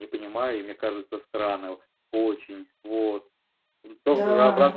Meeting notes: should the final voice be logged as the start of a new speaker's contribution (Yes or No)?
No